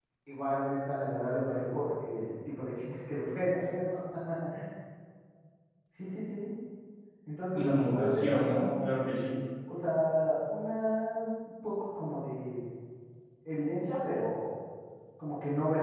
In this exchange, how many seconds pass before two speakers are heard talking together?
8 s

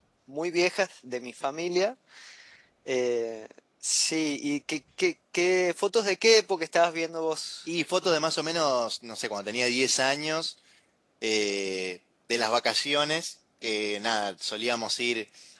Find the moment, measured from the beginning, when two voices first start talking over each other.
none

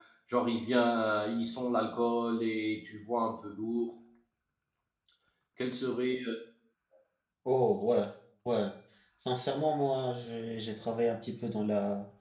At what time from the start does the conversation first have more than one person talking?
none

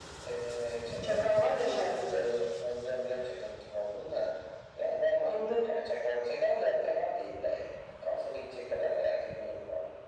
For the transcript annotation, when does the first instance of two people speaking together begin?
1 s

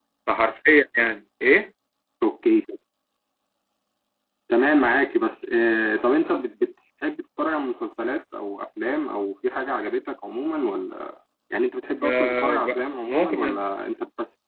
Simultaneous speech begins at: 12 s

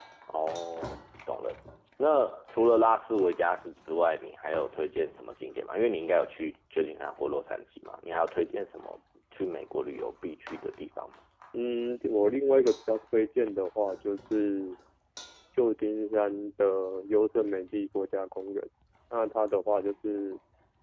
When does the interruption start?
none

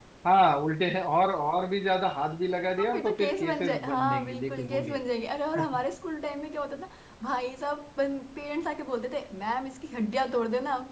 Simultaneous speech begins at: 3 s

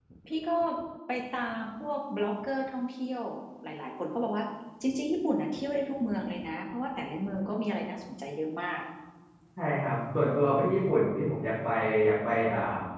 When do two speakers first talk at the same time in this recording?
none

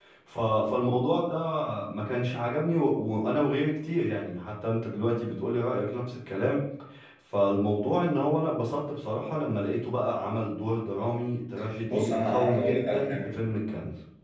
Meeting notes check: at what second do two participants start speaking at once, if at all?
12 s

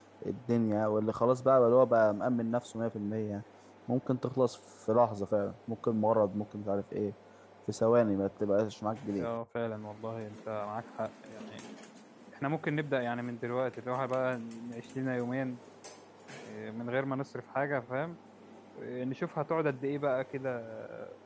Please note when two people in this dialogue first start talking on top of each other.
none

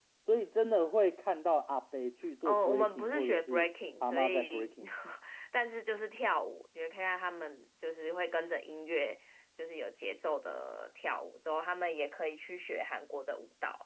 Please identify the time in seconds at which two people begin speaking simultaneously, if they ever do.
2 s

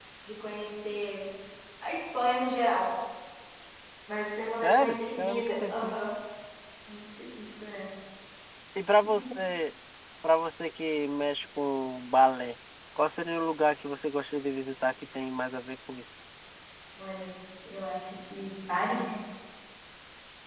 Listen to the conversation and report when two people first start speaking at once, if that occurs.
5 s

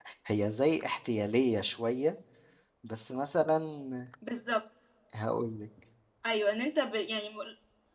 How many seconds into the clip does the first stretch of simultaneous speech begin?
none

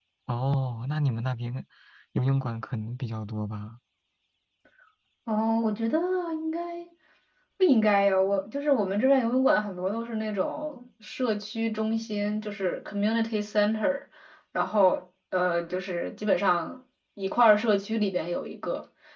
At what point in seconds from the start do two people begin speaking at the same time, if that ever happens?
none

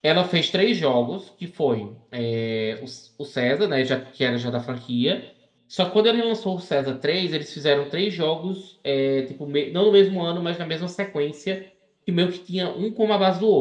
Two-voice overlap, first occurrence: none

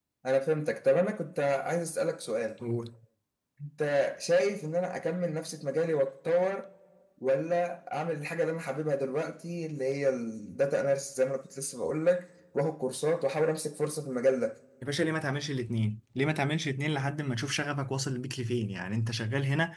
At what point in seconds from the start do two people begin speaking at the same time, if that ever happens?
none

